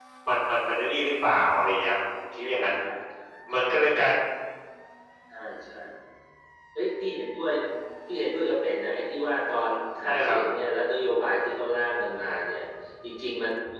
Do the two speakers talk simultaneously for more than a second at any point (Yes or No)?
No